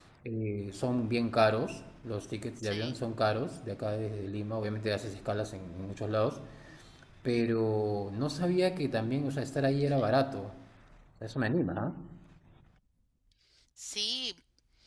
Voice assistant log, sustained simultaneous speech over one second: none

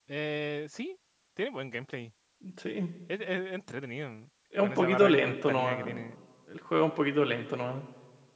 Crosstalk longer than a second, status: present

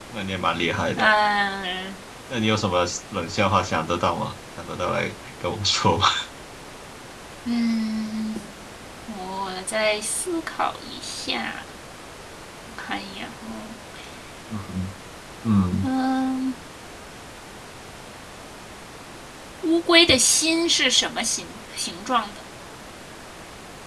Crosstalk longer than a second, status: none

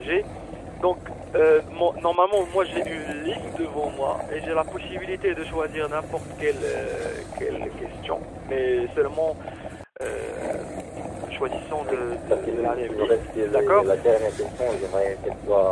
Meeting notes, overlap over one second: present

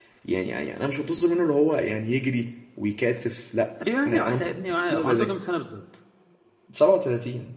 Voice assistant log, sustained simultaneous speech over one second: present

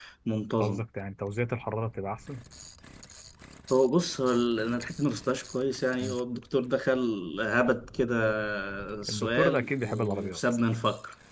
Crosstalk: present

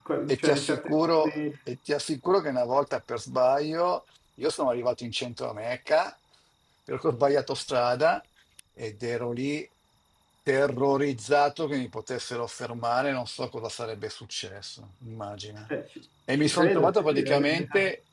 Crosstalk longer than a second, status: present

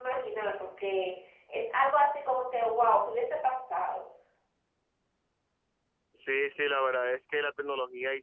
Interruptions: none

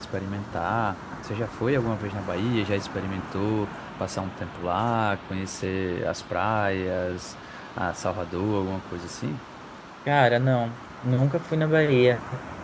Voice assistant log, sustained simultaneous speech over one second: none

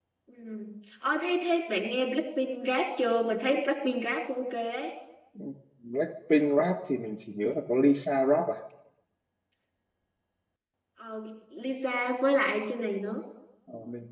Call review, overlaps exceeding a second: none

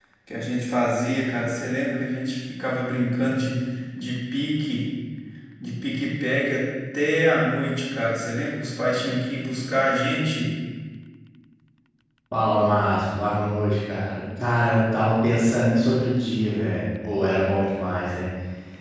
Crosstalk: none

